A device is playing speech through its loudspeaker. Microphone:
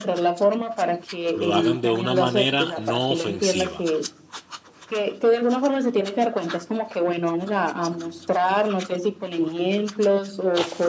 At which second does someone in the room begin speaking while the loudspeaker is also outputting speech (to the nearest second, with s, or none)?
1 s